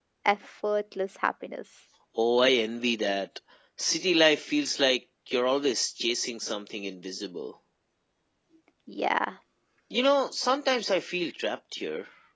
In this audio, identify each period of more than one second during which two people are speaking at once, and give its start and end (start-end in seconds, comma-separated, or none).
none